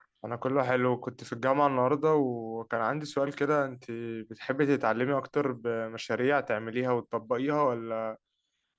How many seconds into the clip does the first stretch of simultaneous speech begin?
none

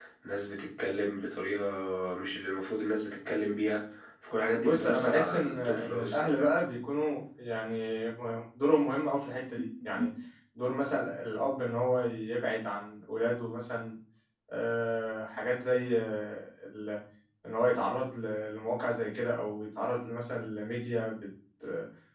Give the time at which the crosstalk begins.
4.5 s

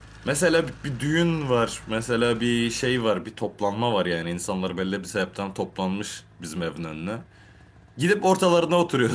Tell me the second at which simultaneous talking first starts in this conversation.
none

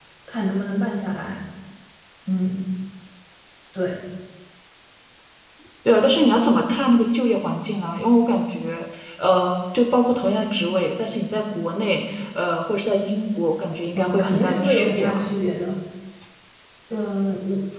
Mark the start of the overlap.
14.0 s

